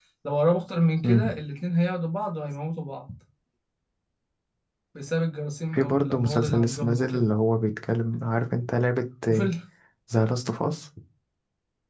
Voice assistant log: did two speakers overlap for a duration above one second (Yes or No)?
Yes